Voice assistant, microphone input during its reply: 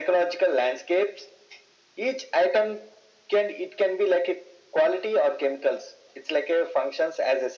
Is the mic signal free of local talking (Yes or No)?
Yes